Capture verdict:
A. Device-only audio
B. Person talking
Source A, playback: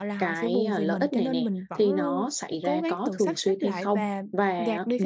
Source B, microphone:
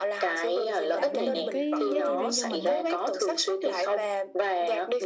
B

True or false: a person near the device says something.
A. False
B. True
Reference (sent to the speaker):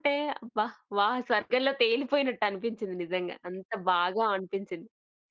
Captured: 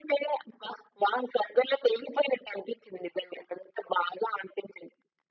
A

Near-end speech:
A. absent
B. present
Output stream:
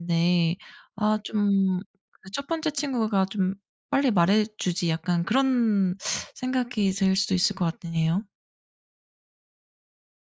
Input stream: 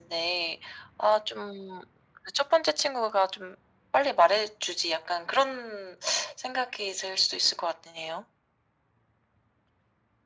A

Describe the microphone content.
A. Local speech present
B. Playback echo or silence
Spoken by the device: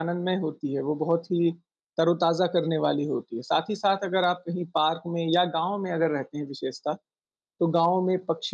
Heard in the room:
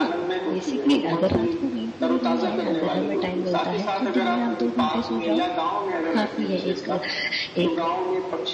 A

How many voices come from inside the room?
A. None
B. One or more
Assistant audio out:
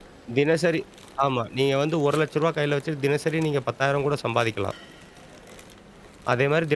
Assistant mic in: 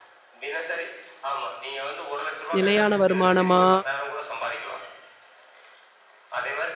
B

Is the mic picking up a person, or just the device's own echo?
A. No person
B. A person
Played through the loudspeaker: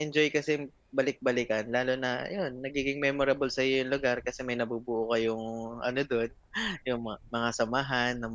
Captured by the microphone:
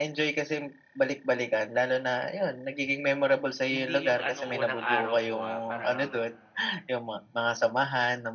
B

